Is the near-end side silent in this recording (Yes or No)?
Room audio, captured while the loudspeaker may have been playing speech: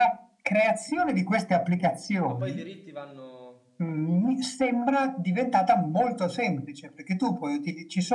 No